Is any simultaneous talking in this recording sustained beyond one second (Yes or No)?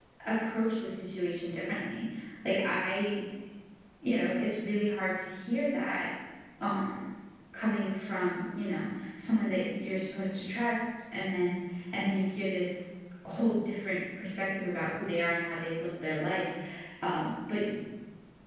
No